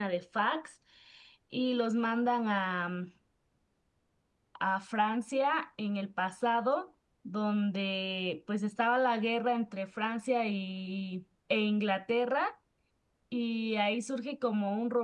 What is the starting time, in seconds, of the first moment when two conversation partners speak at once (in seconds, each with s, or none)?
none